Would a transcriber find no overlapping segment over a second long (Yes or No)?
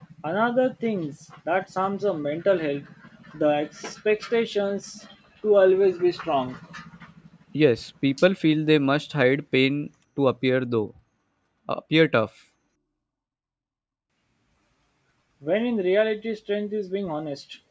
Yes